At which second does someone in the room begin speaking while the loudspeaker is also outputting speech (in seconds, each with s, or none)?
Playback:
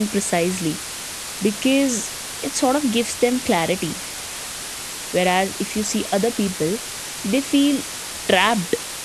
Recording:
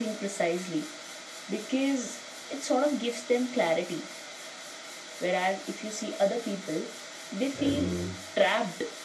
7.5 s